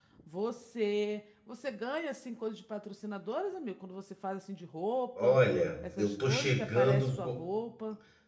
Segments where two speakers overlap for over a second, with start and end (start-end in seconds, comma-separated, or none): 6.0-7.2